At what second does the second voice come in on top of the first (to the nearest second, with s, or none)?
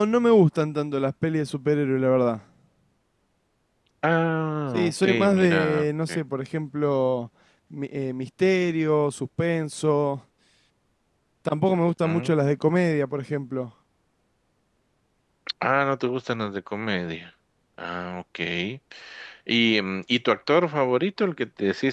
5 s